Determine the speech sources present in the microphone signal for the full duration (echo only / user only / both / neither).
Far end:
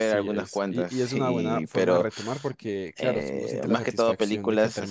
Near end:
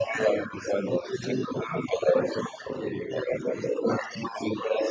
echo only